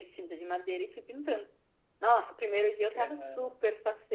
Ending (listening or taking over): listening